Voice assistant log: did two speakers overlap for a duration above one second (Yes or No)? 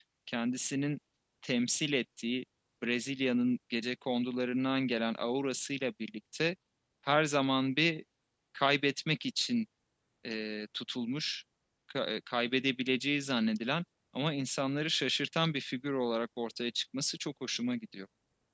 No